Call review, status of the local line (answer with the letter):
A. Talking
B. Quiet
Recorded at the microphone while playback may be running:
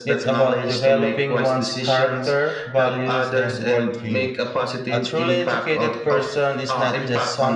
A